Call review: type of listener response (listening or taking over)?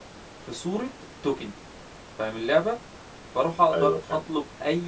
listening